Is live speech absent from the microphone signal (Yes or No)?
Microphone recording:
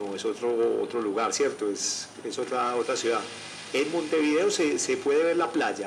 Yes